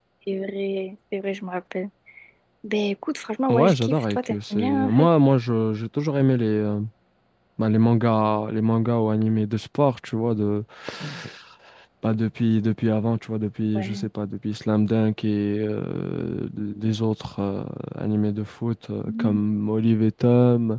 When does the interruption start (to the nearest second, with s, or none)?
3 s